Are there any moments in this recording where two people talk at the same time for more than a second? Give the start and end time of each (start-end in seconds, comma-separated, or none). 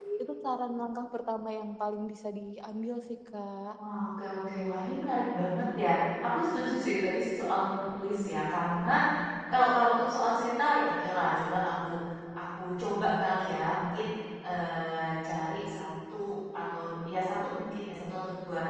none